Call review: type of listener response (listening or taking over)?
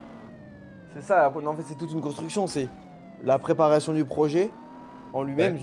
listening